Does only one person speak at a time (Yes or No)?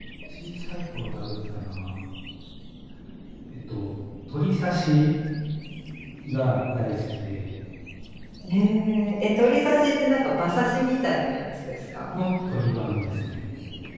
Yes